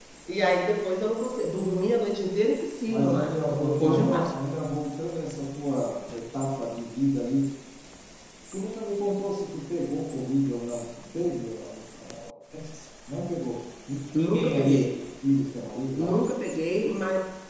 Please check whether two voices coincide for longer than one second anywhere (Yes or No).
Yes